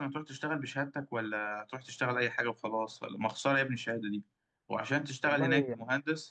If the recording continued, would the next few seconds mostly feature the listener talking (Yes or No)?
No